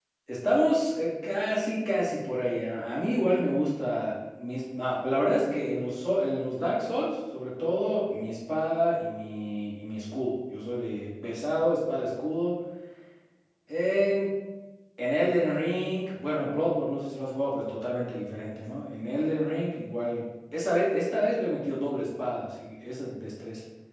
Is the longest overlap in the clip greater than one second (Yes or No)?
No